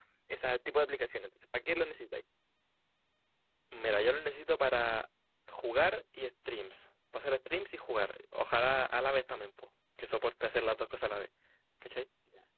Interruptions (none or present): none